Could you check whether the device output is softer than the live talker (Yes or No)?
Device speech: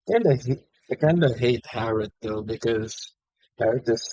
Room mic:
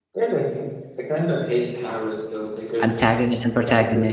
Yes